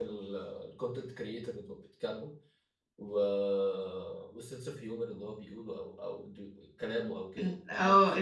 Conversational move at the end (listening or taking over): taking over